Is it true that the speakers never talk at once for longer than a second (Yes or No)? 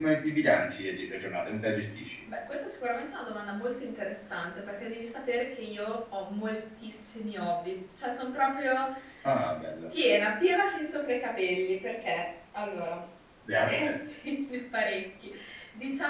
Yes